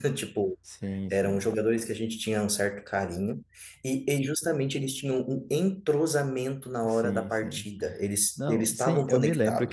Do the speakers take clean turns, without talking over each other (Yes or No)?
No